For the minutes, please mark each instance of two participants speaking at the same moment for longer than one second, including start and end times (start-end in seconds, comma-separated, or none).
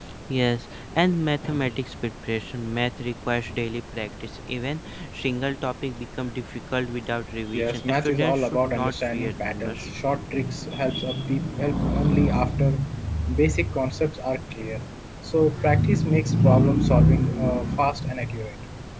7.5-9.9